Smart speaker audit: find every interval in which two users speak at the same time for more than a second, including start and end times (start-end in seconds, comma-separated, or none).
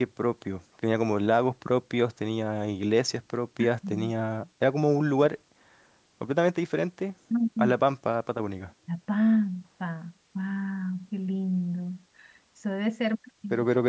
none